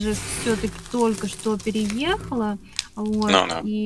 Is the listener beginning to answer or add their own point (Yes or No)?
No